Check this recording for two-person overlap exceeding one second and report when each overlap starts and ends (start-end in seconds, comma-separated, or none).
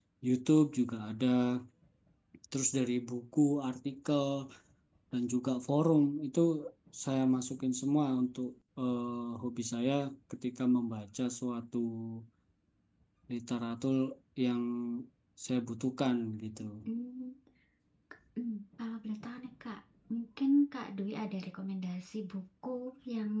none